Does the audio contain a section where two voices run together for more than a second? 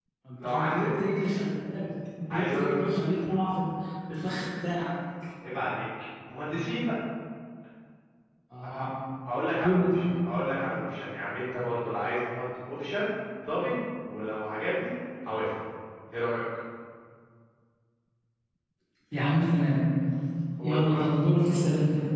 No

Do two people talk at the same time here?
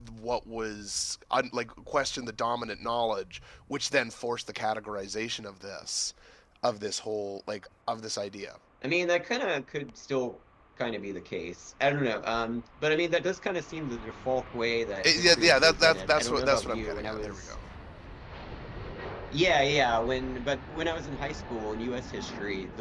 Yes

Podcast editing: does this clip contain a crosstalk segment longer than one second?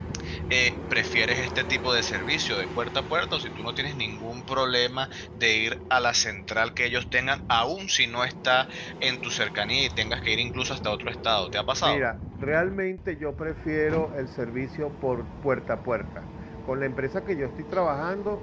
No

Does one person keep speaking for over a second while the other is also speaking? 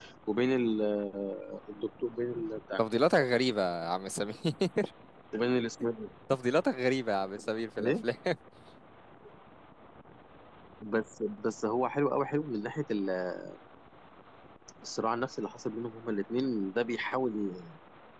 No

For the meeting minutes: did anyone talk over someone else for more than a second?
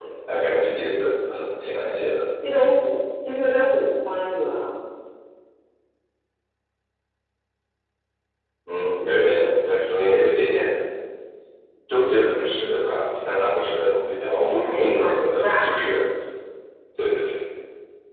Yes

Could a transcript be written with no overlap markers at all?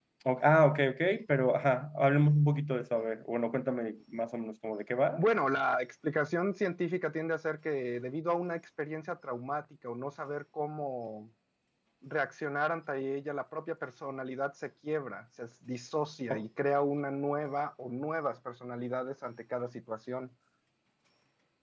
Yes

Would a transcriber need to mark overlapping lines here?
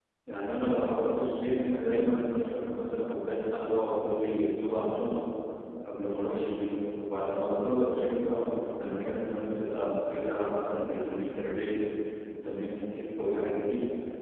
No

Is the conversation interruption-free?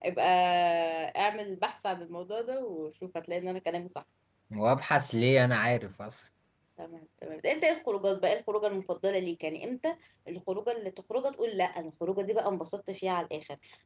Yes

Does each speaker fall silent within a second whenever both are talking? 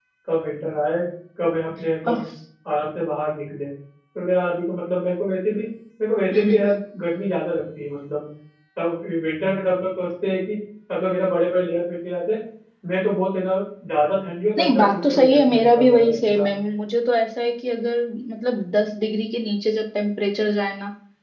No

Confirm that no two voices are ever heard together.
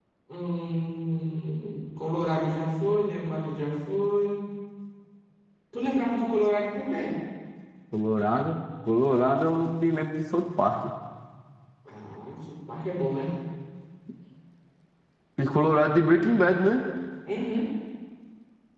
Yes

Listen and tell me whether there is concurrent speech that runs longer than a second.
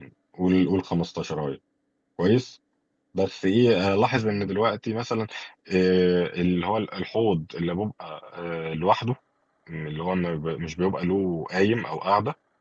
No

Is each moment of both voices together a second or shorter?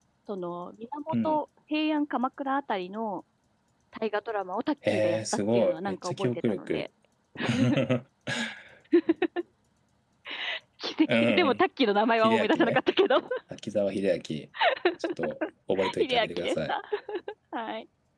No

